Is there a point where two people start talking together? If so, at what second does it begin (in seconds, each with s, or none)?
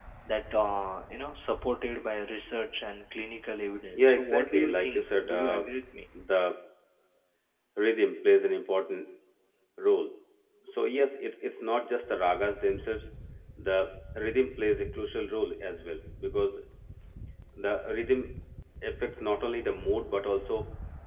3.9 s